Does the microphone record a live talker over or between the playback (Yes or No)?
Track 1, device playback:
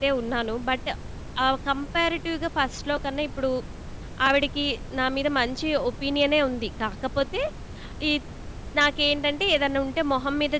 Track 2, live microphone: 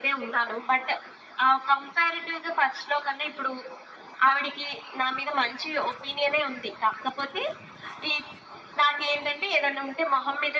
No